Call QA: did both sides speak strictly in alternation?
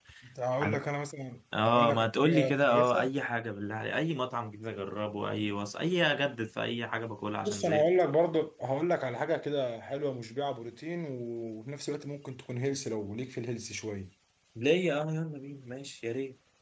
No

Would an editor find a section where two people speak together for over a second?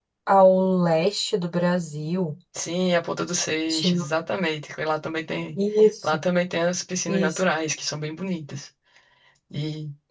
No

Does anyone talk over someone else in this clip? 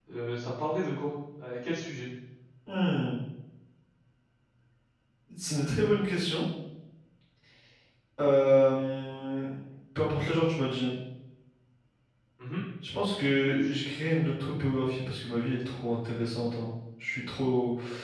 No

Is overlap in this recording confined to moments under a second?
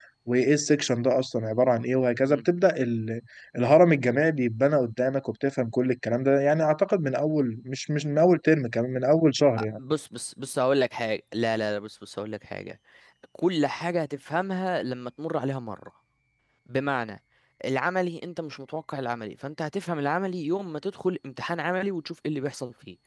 Yes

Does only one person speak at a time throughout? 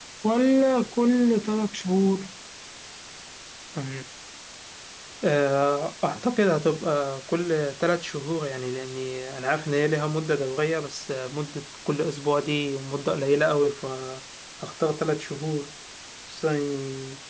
Yes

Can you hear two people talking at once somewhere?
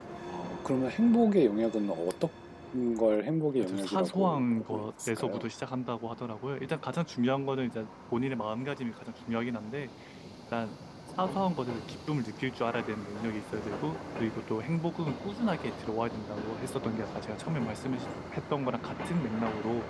Yes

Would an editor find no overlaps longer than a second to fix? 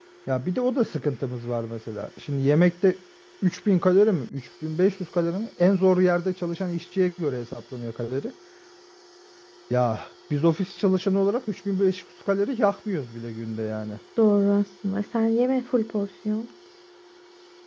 Yes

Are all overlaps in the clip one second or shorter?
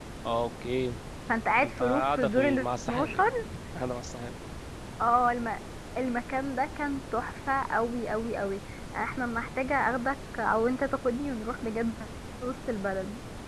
No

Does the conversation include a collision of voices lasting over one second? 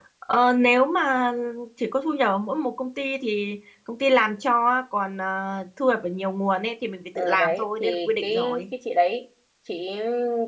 Yes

